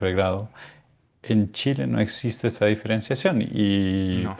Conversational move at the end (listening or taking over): listening